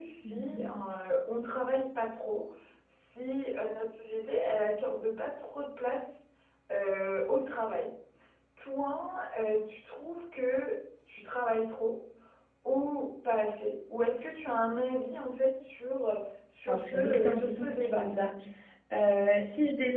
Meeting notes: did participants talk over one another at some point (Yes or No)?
Yes